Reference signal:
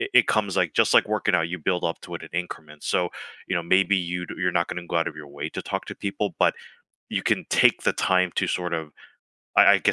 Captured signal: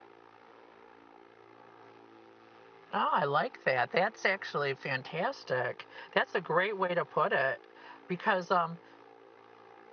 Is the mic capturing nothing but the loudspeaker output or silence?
No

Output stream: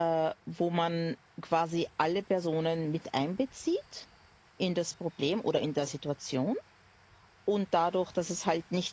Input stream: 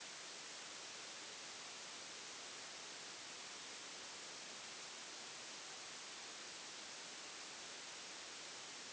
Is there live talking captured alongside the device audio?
No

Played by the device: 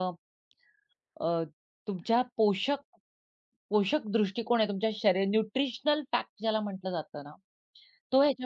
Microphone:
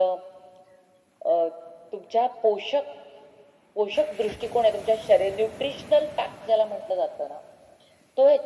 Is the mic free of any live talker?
Yes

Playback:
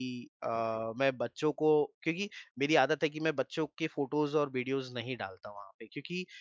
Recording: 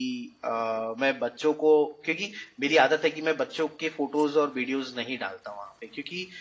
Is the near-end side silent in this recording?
Yes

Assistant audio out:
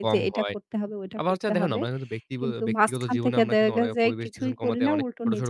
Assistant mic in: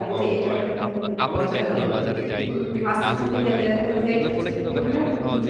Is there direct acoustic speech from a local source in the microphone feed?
Yes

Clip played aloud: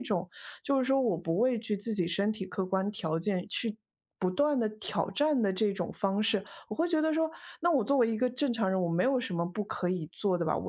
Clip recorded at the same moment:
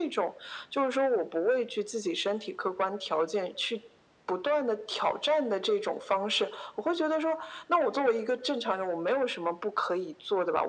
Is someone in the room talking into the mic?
No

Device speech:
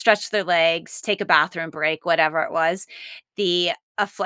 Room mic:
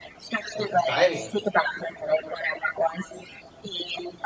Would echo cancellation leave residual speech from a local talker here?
Yes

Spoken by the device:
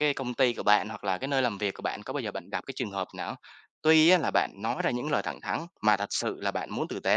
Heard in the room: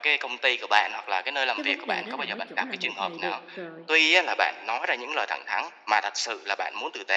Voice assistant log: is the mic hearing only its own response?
No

